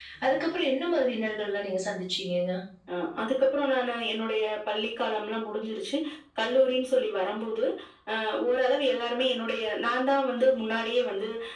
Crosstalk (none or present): none